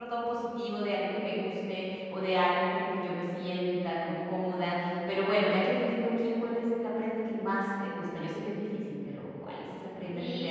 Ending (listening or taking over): taking over